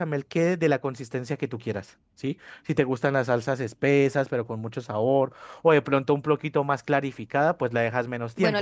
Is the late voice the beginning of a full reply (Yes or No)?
Yes